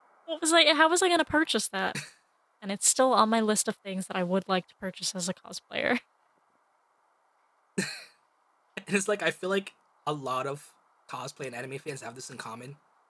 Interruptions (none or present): none